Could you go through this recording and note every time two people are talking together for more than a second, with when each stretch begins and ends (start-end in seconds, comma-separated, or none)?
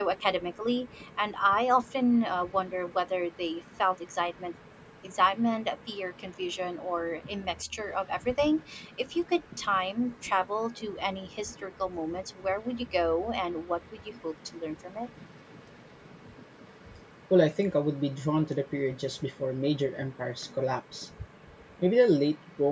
none